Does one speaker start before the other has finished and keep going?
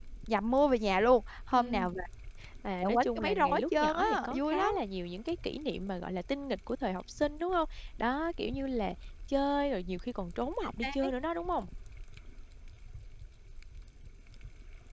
Yes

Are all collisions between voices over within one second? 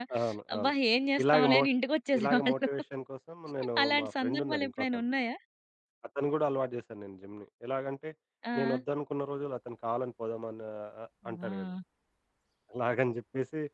No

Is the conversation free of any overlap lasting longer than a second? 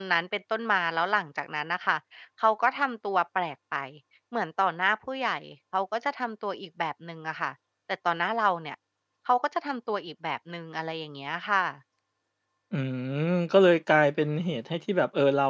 Yes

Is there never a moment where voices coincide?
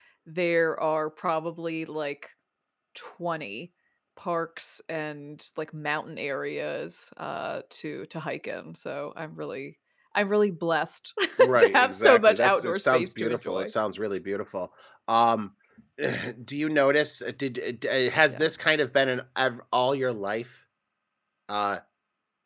No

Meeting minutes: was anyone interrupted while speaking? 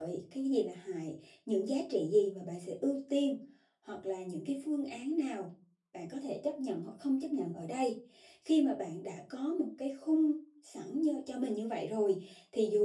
No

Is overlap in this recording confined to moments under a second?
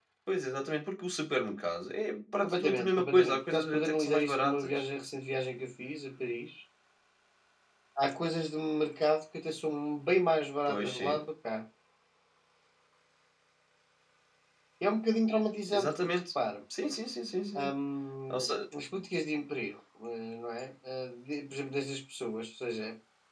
No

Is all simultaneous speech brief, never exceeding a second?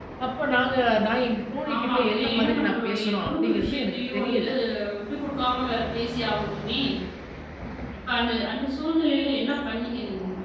No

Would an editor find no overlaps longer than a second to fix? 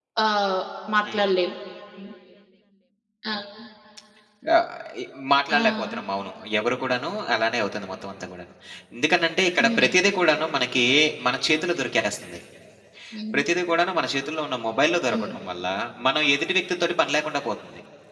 Yes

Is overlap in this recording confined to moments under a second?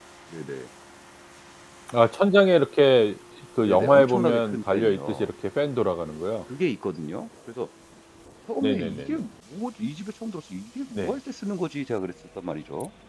No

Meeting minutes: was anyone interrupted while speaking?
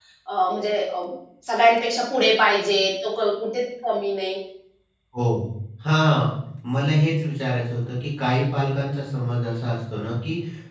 No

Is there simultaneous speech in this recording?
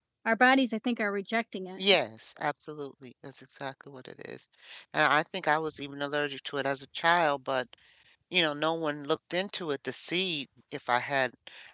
No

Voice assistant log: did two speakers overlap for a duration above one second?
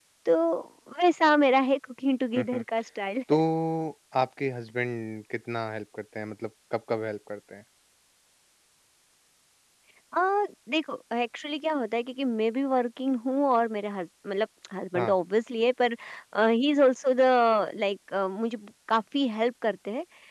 No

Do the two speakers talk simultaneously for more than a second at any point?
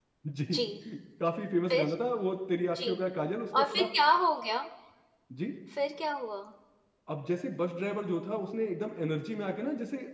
No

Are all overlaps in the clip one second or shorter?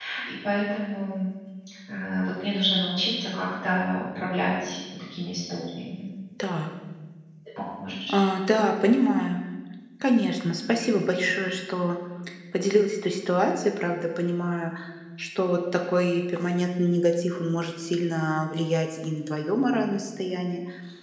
Yes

